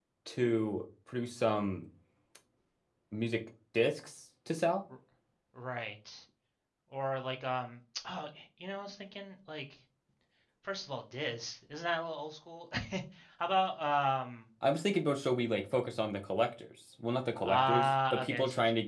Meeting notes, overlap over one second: present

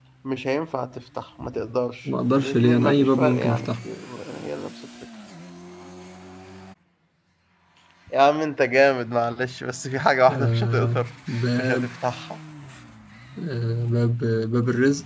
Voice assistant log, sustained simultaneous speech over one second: present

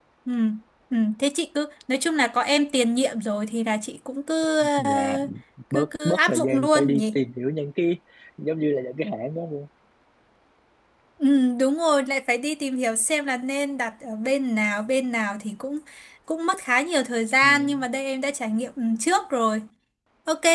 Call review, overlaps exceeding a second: present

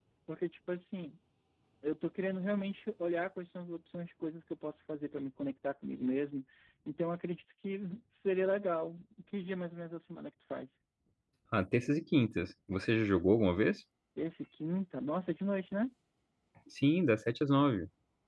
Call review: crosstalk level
none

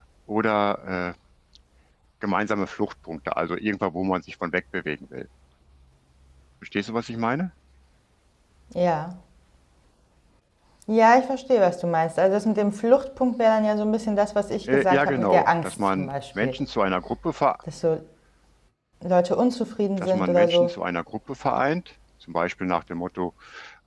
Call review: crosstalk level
present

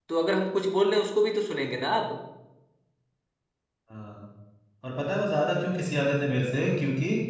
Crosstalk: none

